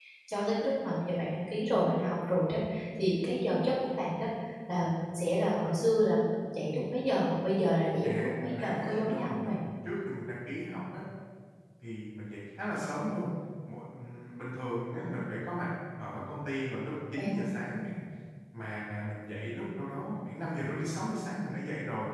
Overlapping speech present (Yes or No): Yes